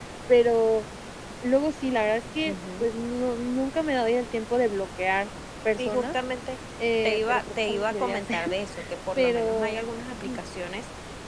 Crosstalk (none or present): present